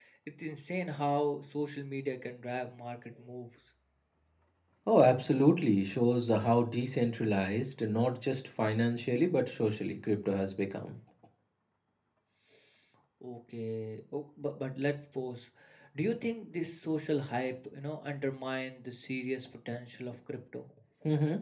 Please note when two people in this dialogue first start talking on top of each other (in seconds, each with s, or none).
none